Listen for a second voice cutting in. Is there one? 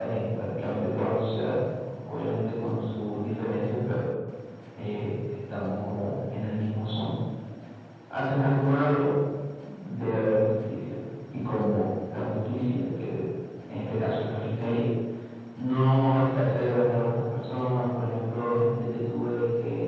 No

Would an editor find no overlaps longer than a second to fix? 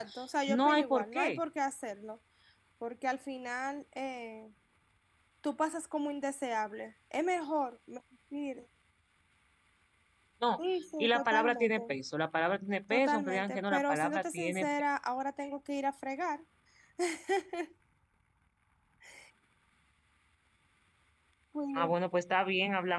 No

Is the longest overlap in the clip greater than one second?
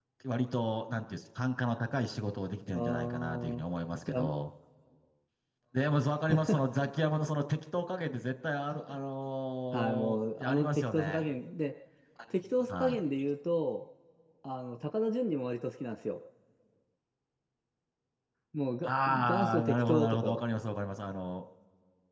Yes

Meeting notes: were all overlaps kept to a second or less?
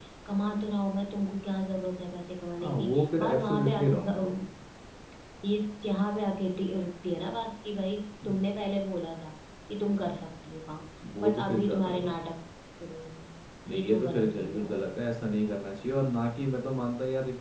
No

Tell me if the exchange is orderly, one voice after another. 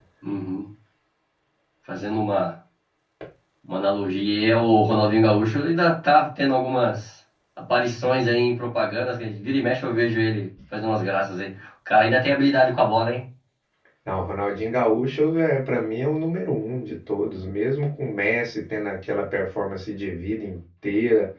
Yes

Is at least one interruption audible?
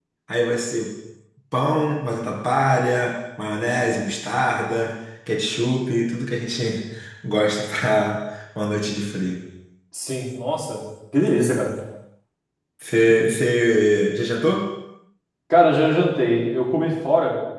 No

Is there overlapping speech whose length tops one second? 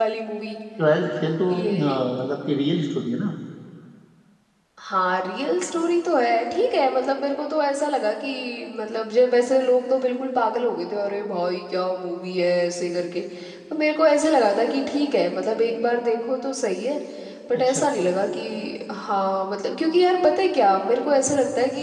No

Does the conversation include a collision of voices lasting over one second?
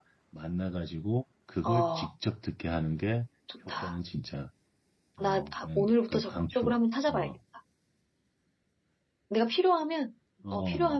Yes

